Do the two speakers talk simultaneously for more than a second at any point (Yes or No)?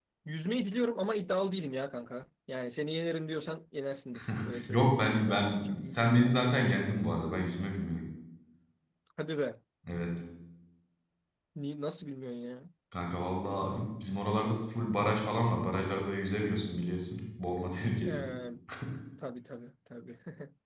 Yes